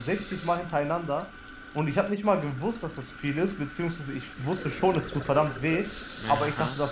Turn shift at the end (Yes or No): No